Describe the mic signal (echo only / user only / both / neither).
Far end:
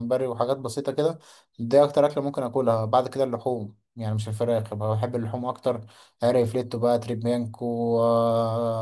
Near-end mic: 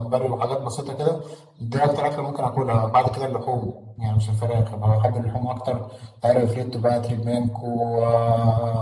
echo only